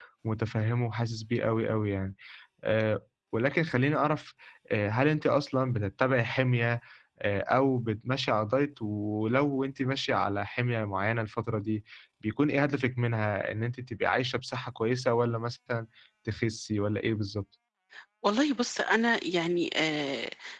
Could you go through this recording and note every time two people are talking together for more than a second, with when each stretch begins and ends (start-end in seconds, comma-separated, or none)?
none